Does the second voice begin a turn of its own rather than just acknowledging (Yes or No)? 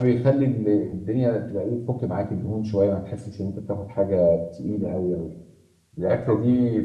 No